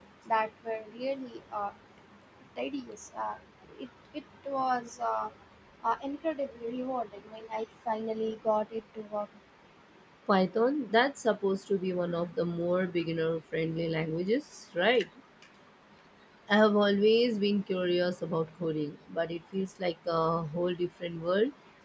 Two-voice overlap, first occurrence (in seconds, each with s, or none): none